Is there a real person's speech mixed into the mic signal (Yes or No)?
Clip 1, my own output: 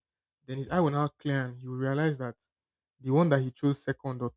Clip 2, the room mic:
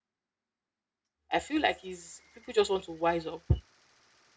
Yes